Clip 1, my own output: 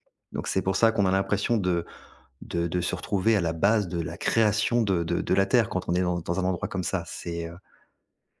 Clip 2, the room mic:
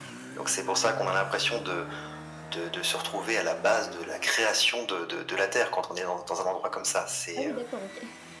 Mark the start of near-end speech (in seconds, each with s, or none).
7.3 s